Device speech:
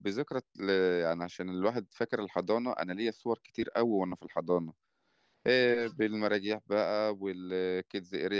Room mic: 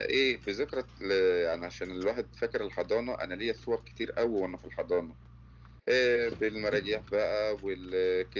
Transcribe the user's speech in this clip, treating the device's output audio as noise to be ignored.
none

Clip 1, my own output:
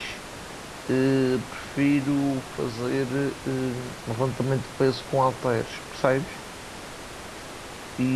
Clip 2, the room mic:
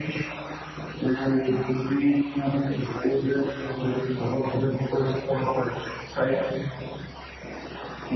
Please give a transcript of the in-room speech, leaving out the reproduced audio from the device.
none

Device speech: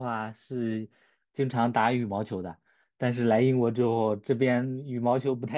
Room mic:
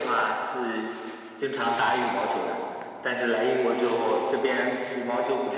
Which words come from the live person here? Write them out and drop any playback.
none

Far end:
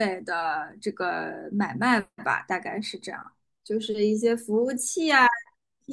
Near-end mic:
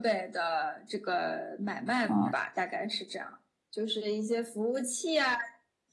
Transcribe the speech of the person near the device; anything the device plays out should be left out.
哦

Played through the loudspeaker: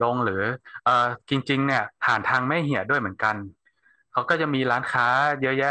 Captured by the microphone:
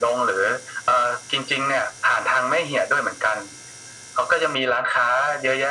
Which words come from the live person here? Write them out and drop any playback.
none

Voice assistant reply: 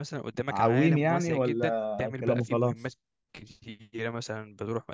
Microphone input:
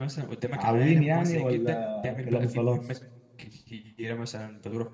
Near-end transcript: none

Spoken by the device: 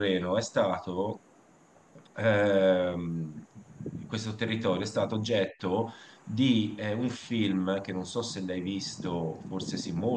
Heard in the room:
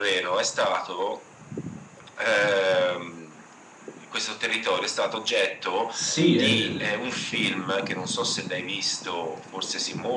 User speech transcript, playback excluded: Sì, eh, eh,

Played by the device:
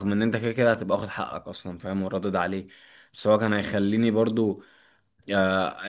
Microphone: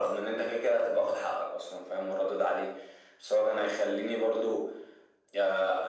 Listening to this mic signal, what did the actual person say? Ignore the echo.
none

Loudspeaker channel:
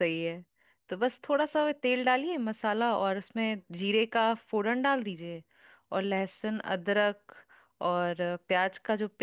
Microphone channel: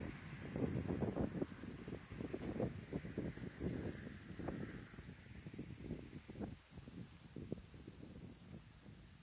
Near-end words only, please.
none

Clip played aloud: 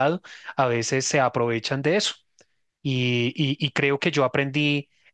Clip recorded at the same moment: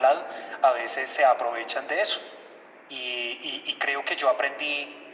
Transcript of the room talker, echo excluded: none

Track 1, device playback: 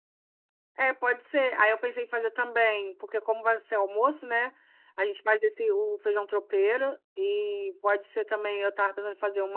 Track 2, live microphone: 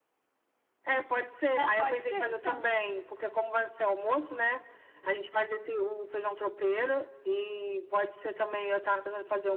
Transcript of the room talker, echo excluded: Não pode ser, então.

